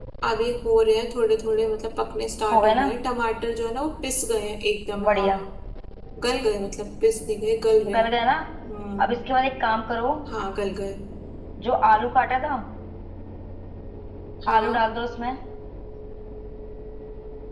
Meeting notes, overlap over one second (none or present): none